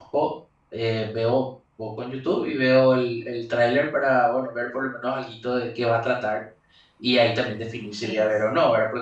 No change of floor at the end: Yes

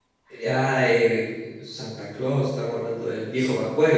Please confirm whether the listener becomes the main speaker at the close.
Yes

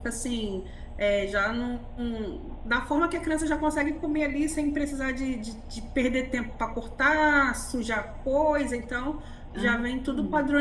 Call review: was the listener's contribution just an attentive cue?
Yes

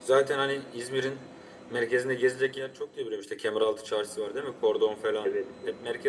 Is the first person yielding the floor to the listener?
Yes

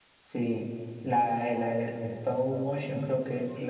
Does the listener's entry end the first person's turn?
Yes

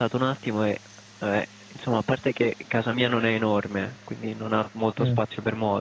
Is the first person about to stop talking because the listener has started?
No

